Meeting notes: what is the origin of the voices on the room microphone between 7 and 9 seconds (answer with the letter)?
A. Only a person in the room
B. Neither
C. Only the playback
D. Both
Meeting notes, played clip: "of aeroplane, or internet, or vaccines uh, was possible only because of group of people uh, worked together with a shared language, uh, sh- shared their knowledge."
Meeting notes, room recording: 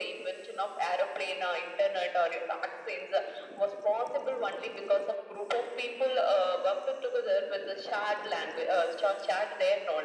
C